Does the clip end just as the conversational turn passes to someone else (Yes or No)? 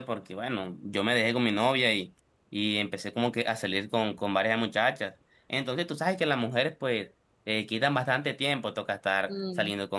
No